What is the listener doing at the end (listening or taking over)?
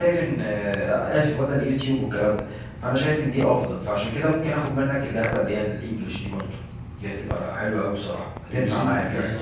taking over